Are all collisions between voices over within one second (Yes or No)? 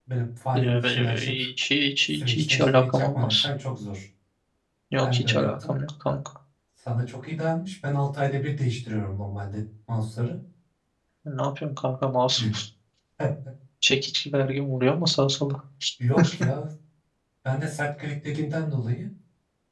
No